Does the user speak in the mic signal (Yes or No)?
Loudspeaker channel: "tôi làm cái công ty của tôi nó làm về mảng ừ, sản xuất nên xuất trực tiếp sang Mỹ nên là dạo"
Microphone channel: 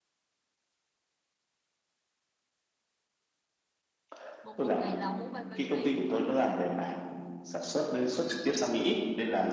Yes